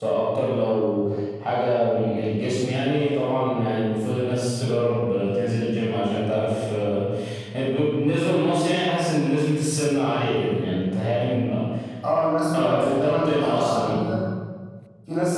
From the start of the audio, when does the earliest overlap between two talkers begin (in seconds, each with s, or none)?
12.5 s